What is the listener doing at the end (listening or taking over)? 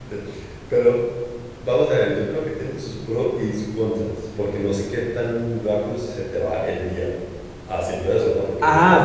taking over